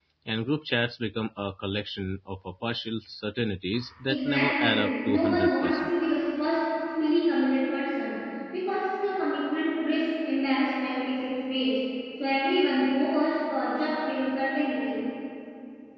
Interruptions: present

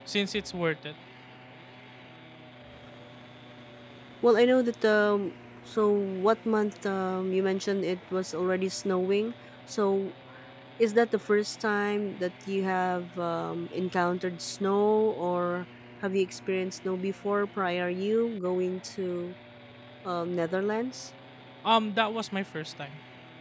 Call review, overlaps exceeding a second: none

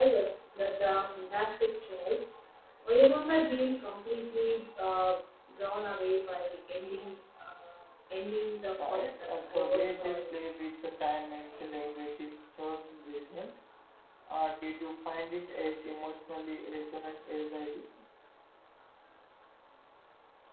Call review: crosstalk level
present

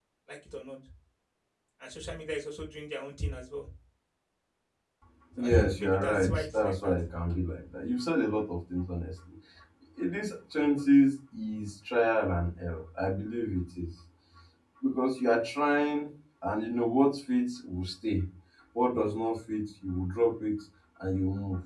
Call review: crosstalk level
present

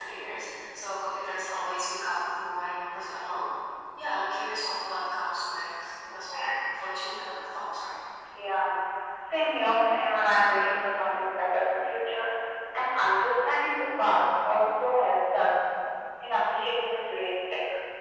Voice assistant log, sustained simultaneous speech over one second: none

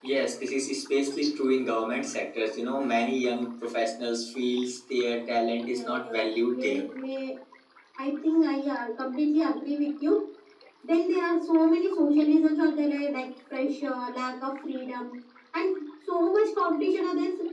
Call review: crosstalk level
present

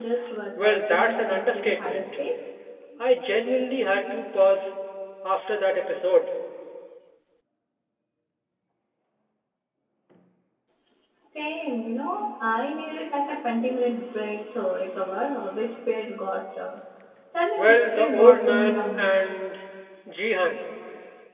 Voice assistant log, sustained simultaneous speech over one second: present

